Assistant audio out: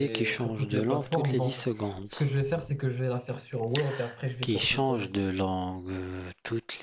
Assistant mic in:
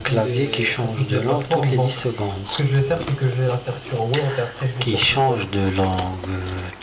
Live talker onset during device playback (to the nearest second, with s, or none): none